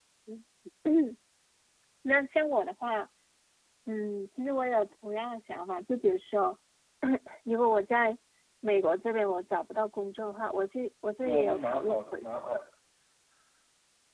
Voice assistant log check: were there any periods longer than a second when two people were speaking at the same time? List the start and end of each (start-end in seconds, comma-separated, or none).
11.2-12.6